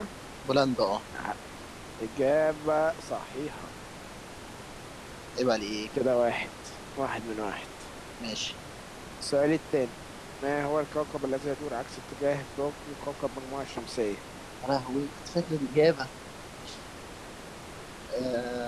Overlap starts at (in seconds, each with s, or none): none